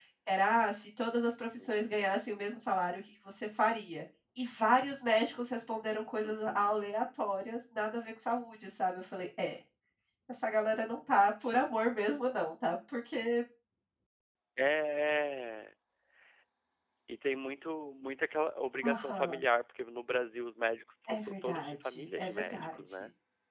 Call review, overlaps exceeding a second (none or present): present